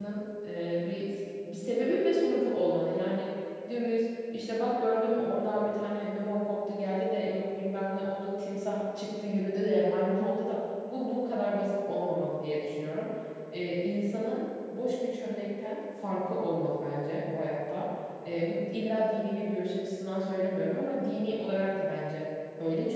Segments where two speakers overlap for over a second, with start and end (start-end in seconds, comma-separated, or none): none